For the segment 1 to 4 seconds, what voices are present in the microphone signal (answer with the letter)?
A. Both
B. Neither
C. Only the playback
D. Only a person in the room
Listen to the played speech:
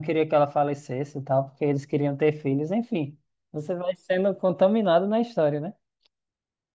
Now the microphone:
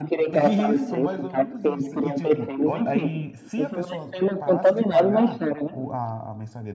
A